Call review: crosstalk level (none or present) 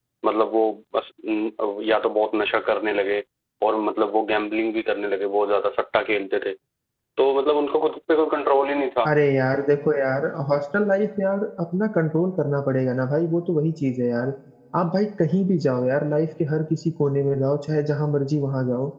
none